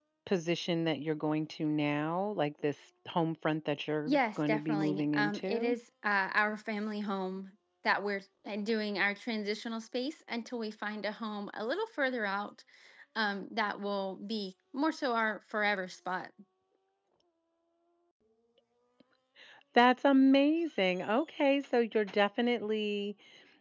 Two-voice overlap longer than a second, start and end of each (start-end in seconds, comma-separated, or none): 4.1-5.8